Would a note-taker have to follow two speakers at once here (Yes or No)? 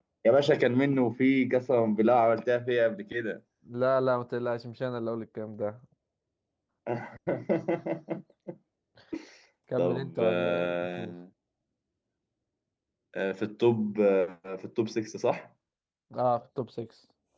Yes